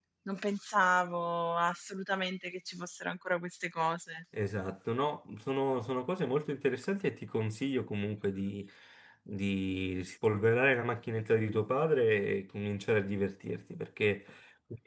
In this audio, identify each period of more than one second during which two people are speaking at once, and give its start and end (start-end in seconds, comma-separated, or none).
none